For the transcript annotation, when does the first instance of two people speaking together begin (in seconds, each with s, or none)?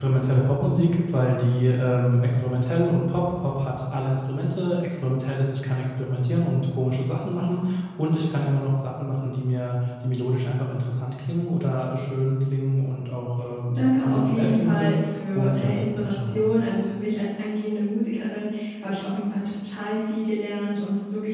13.8 s